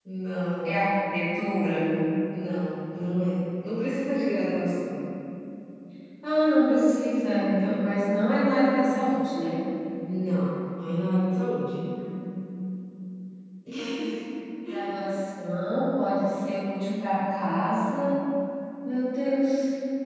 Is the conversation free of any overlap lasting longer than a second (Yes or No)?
Yes